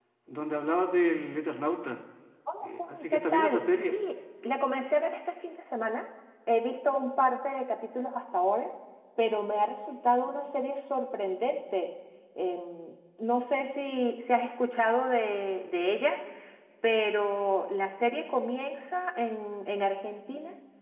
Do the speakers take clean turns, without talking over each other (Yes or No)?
No